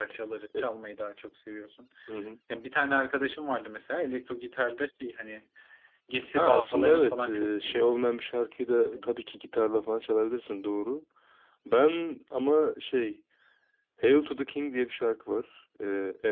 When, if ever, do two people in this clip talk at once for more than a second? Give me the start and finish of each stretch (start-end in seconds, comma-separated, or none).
6.3-8.0